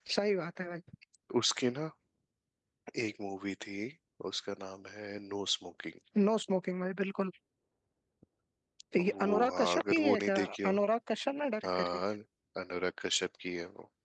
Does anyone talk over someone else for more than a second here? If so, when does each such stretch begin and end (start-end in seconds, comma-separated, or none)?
9.1-10.7